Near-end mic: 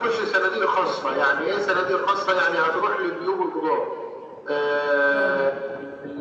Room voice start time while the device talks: 5.1 s

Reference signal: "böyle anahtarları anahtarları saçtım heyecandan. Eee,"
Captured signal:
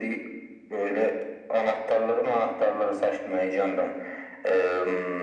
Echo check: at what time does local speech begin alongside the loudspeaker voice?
none

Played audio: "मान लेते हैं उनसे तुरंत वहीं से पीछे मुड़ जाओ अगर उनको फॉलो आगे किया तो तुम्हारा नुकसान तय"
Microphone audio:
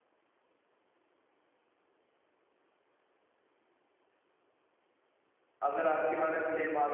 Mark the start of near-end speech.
5.6 s

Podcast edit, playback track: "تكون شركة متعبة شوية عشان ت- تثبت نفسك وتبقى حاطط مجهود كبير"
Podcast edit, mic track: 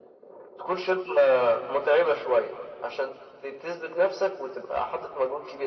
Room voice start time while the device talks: none

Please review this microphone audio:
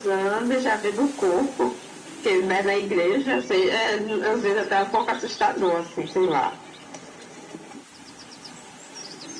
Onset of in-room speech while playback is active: none

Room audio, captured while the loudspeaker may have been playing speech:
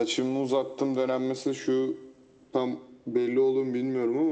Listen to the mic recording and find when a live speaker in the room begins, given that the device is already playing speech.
none

